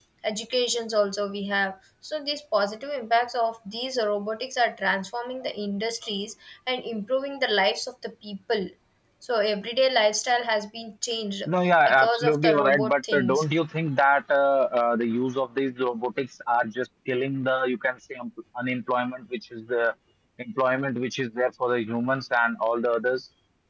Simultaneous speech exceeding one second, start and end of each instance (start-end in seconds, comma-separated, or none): 11.9-13.4